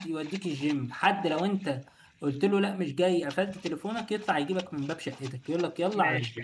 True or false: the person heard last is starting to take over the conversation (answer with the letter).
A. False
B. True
B